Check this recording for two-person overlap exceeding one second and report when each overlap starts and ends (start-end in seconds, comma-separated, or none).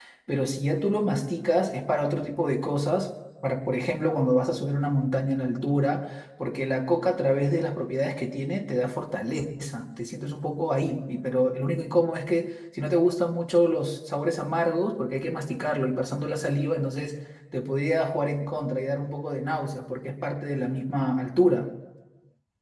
none